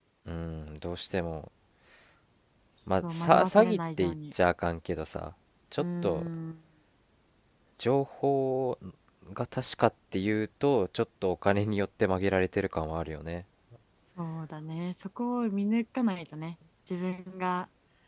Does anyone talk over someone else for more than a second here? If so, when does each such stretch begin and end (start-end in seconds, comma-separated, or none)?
3.1-4.3